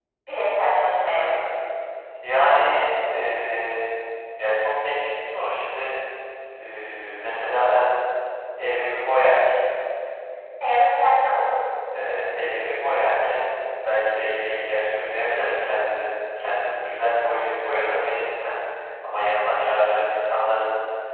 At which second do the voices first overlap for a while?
none

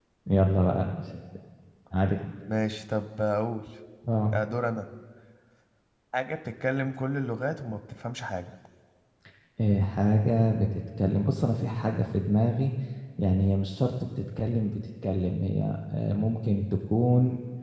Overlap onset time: none

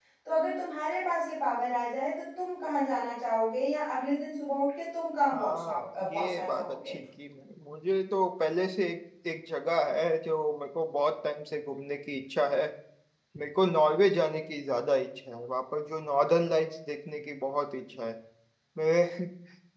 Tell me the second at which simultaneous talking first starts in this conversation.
5.3 s

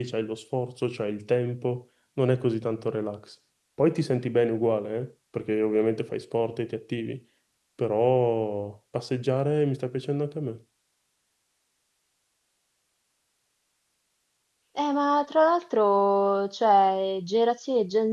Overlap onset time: none

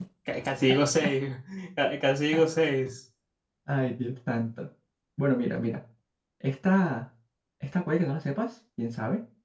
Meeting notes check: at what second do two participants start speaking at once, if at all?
none

